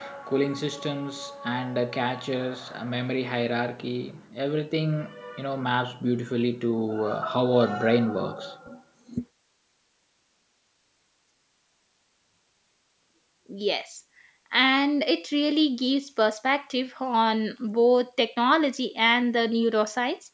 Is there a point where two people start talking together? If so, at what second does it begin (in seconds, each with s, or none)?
none